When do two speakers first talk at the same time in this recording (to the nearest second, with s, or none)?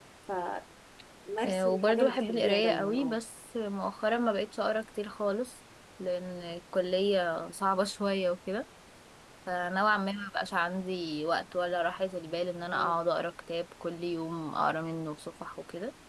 2 s